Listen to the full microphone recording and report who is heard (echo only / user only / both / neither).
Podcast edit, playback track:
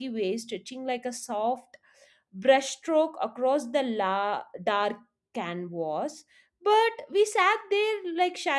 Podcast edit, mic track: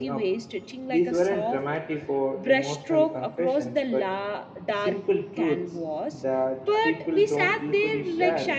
both